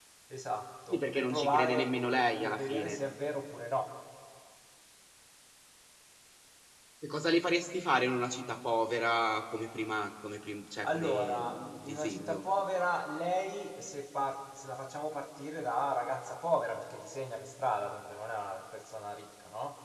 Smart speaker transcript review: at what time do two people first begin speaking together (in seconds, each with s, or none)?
0.9 s